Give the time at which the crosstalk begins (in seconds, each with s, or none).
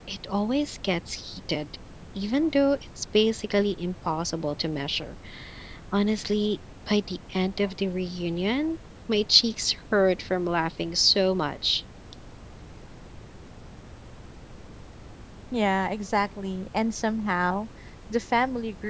none